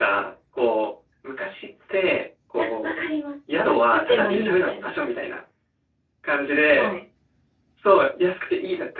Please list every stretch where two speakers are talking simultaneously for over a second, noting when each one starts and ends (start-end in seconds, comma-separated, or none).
3.6-4.9